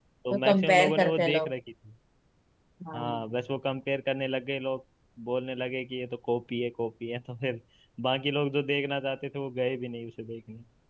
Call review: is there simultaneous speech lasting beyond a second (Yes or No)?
Yes